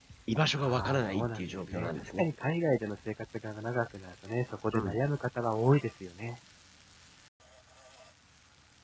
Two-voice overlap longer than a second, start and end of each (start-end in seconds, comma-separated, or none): 0.6-2.3